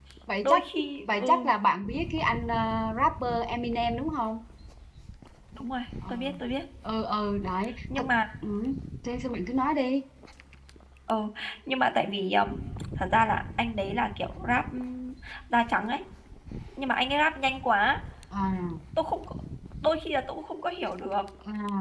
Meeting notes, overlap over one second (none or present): none